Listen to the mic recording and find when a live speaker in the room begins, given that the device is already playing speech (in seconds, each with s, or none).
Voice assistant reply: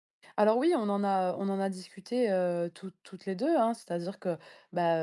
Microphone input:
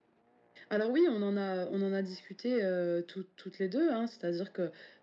none